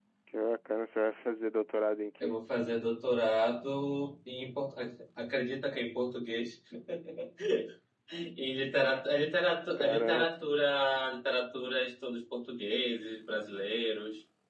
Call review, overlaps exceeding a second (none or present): none